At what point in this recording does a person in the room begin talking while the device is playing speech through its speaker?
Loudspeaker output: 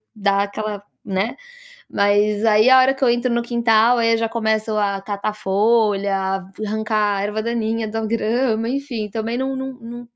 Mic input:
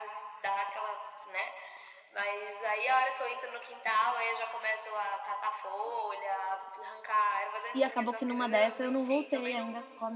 8 s

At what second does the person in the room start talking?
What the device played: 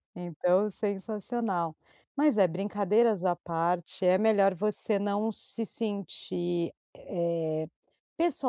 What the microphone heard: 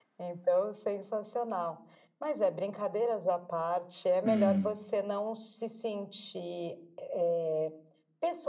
4 s

